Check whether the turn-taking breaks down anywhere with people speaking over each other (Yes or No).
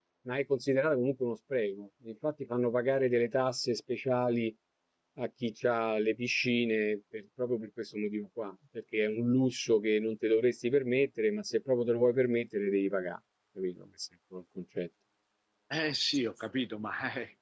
No